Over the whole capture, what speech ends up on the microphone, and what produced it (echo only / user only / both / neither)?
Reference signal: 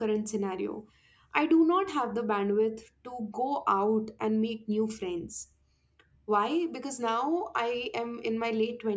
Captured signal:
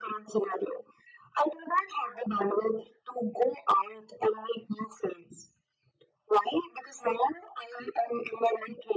echo only